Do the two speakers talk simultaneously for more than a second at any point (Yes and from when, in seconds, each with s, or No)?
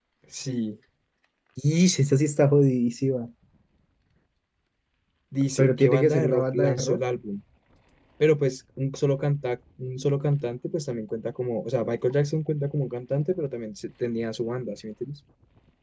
Yes, from 5.6 s